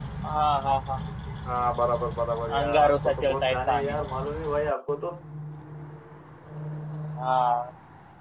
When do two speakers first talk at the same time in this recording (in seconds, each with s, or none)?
2.5 s